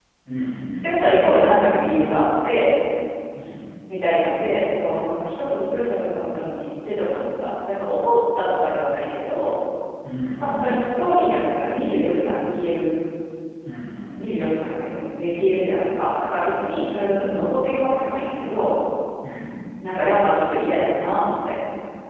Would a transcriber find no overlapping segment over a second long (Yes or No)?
Yes